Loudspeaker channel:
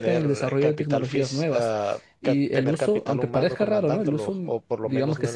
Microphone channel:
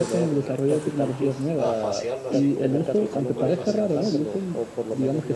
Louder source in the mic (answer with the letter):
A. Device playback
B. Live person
A